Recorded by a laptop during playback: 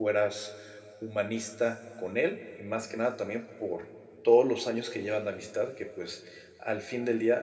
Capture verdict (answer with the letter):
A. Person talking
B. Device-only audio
A